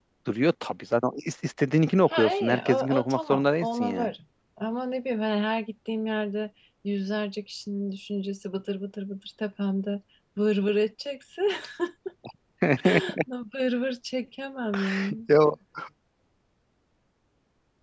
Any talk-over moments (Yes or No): Yes